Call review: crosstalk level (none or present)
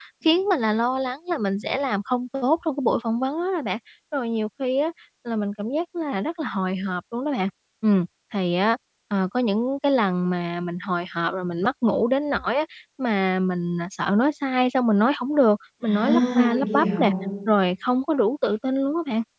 present